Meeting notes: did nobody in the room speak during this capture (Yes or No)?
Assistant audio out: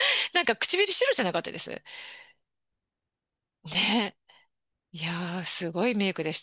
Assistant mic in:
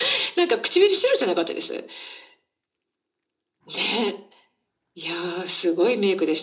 Yes